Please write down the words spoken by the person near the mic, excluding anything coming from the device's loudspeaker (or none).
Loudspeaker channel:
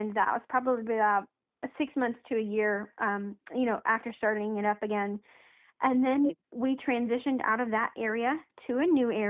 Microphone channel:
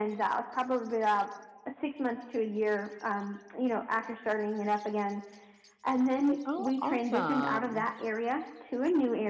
Oh, awesome.